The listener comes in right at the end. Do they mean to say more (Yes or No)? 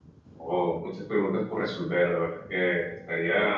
No